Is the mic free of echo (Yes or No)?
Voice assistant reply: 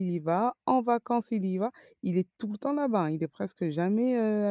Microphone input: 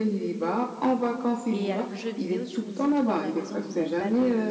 No